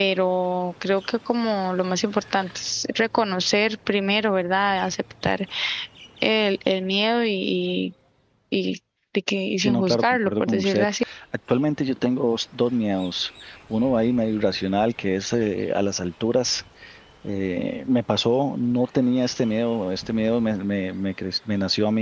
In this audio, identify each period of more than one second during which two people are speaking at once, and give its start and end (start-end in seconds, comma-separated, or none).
9.6-10.8